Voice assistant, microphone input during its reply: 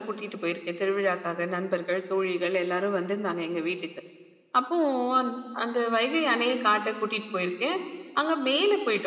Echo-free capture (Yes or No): No